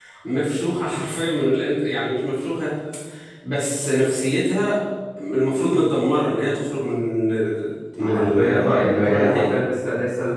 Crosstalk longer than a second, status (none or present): present